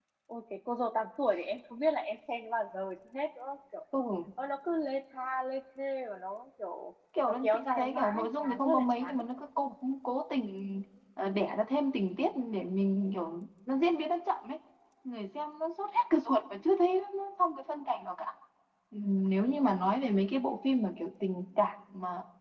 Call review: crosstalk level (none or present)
present